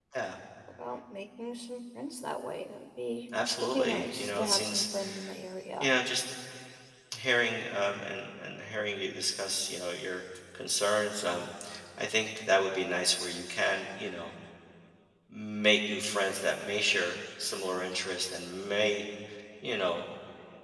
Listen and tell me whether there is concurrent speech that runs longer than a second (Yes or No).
Yes